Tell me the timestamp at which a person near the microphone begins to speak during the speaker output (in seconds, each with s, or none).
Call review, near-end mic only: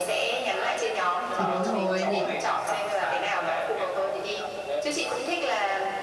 1.3 s